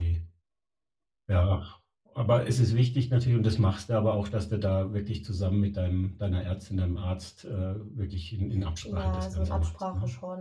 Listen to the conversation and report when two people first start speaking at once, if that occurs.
8.8 s

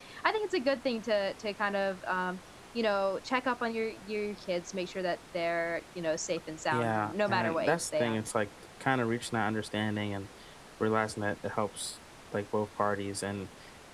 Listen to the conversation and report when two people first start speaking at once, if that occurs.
6.7 s

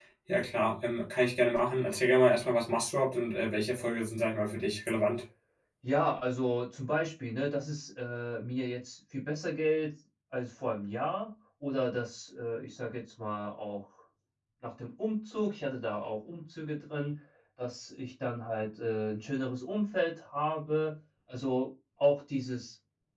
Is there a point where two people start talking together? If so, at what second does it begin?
none

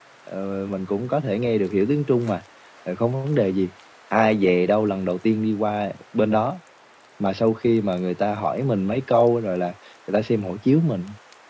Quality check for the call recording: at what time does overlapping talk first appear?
none

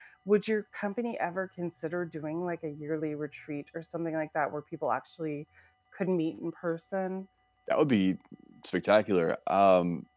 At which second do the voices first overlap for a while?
none

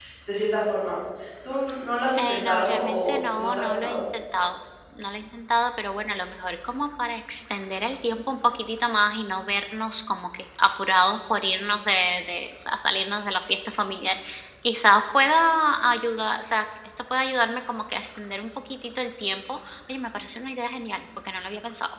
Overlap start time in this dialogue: 2.2 s

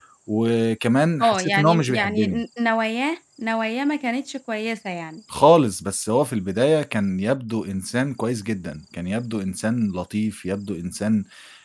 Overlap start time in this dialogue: 1.2 s

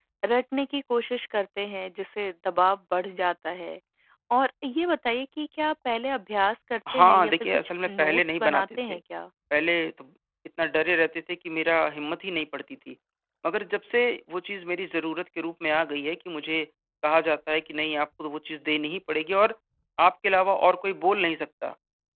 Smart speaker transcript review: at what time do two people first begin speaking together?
6.9 s

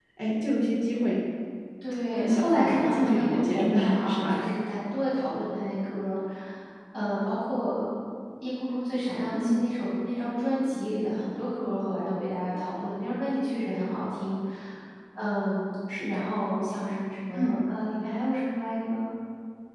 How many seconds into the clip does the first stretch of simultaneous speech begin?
2.2 s

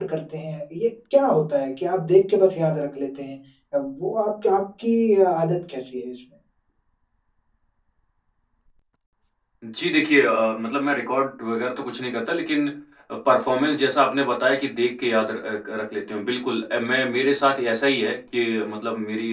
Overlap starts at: none

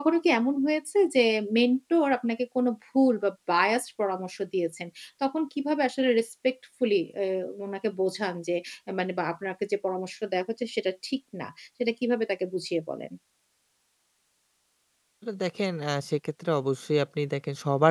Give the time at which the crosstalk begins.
none

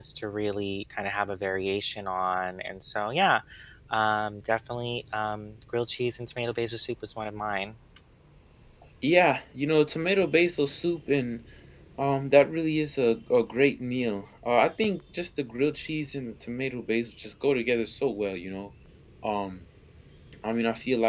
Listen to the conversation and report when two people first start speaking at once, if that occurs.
none

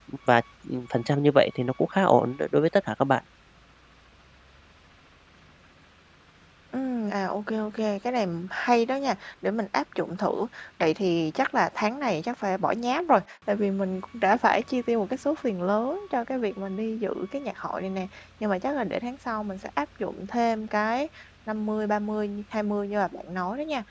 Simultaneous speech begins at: none

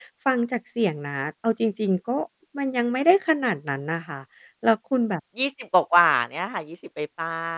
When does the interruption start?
none

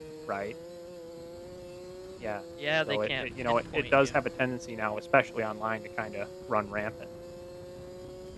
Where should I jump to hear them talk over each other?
2.9 s

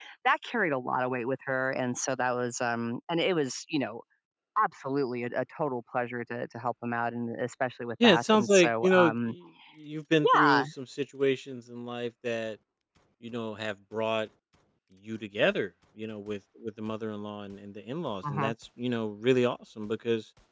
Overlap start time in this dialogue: 8.0 s

